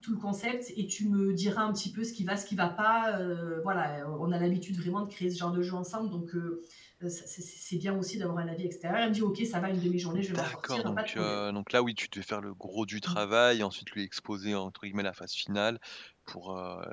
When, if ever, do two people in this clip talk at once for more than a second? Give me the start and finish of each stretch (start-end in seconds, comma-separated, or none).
10.2-11.4